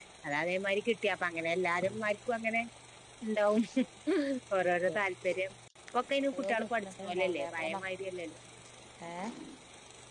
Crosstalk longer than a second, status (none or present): present